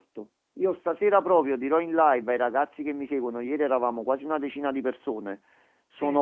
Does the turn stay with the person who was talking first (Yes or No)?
Yes